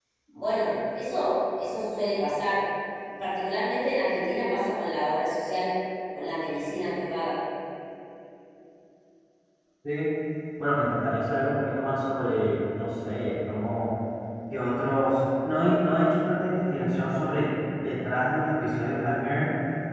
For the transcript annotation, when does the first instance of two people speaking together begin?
none

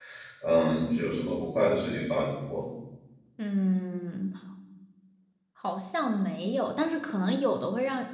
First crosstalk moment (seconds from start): none

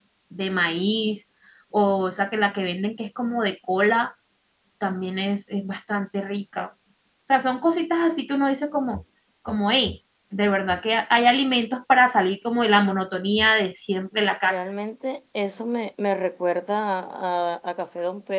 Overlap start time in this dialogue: none

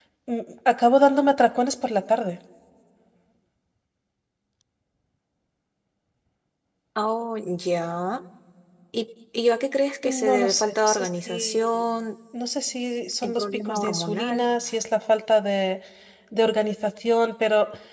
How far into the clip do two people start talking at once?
10 s

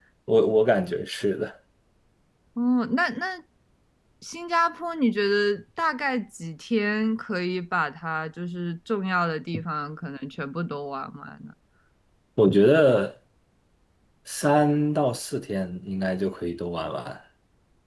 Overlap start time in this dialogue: none

